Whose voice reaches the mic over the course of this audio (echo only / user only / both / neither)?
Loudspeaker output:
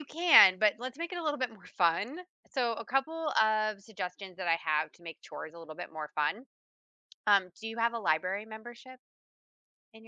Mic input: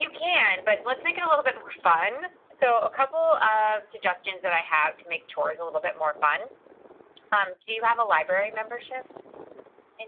echo only